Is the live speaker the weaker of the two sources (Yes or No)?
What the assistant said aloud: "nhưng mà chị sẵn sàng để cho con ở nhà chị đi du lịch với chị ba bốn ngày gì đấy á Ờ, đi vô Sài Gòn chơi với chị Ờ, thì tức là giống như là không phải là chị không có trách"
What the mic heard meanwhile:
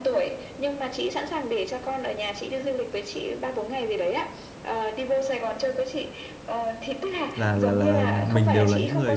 No